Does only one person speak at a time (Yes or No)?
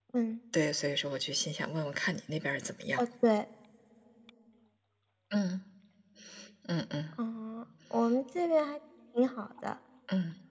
Yes